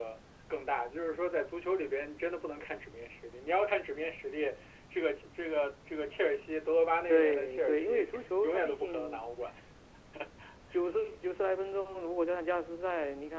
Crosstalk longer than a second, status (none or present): present